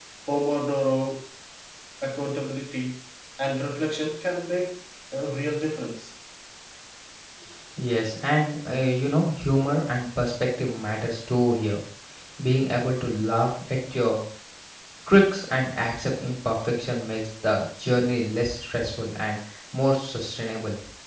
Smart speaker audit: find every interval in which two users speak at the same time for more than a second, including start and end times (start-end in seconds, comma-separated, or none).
none